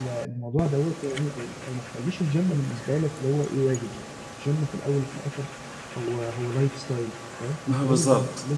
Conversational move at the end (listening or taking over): listening